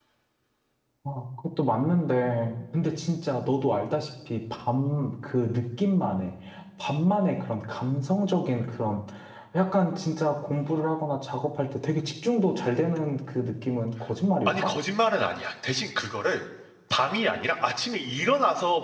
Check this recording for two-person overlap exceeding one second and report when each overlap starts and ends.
none

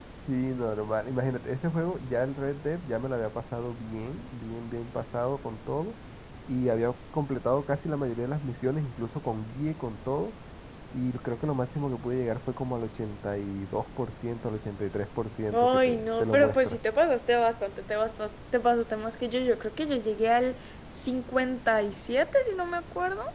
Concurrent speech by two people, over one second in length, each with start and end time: 15.5-16.8

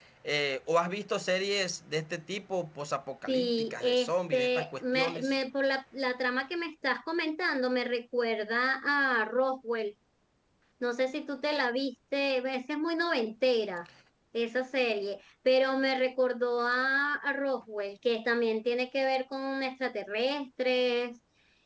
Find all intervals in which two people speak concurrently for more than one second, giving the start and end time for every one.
3.3-5.3

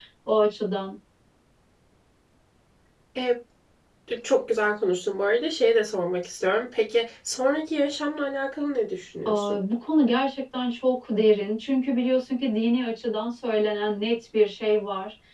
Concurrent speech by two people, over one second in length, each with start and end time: none

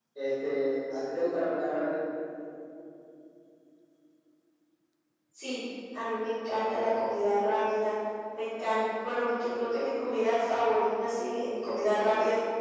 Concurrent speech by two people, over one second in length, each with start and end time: none

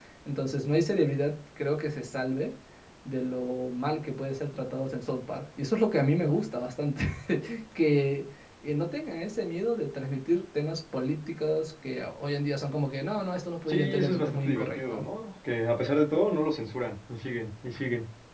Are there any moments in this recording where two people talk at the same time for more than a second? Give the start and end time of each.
13.7-15.1

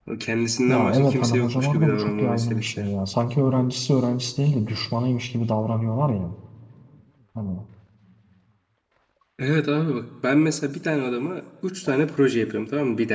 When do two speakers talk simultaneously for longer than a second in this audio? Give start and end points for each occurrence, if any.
0.7-2.9

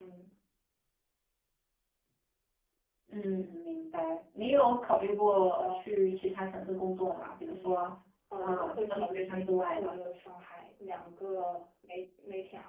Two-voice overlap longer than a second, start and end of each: 8.4-9.9

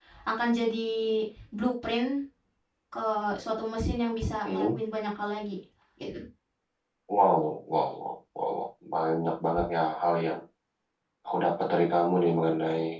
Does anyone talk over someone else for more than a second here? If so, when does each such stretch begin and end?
none

